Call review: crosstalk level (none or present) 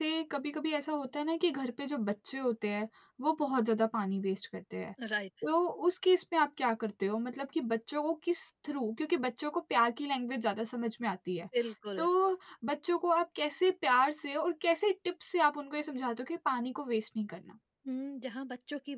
none